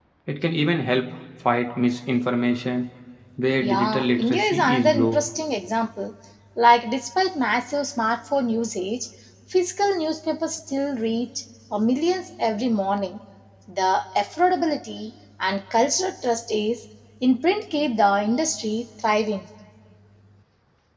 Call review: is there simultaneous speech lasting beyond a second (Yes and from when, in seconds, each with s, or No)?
Yes, from 3.6 s